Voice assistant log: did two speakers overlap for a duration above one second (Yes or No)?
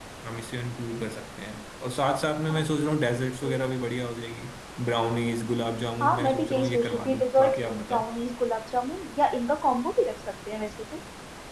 Yes